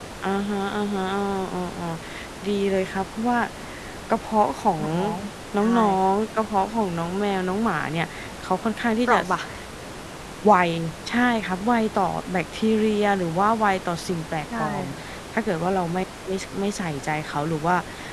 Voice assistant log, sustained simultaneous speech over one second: none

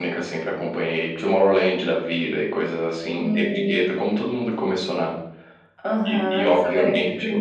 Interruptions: present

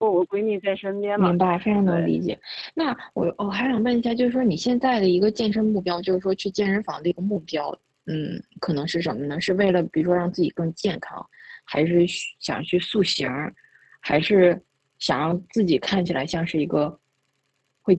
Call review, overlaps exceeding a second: none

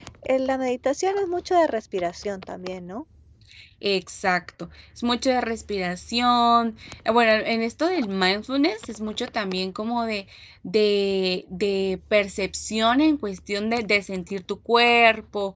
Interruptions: none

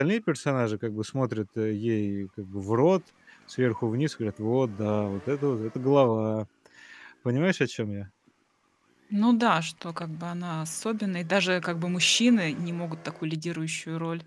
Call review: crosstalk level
none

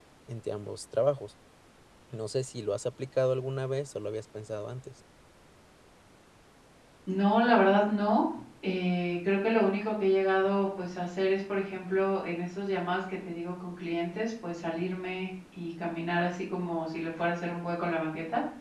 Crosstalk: none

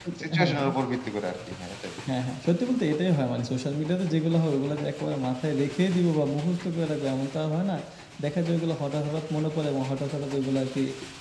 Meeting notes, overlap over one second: none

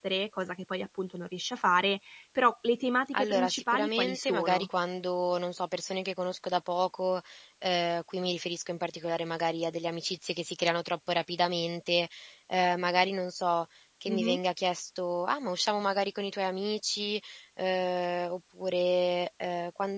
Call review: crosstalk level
present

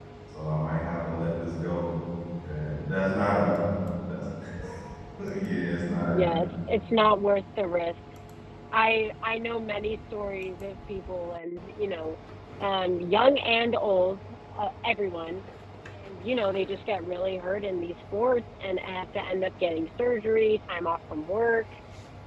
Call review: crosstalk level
none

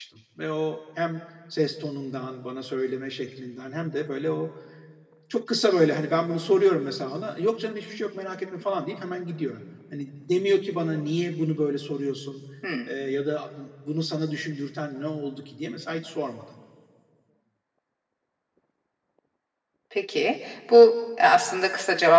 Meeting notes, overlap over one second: none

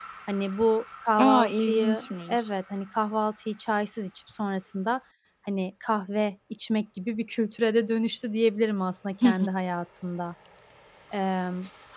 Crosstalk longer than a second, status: present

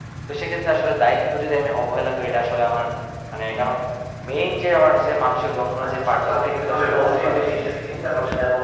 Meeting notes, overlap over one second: present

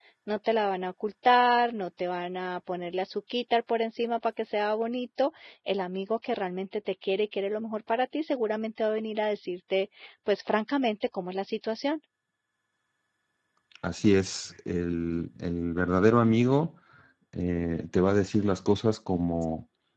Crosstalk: none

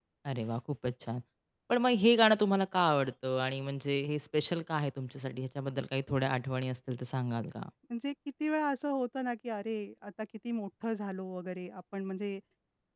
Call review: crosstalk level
none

